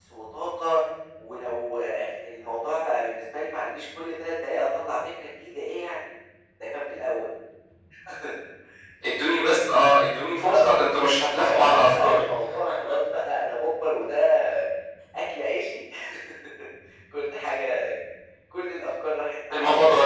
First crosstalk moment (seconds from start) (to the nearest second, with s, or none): 10 s